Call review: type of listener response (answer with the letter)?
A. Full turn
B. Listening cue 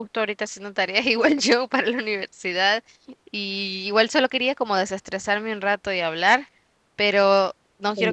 B